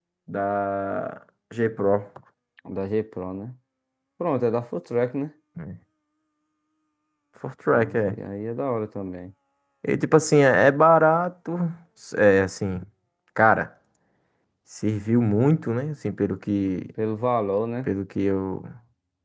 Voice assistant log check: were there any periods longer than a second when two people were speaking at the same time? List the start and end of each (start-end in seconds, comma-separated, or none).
none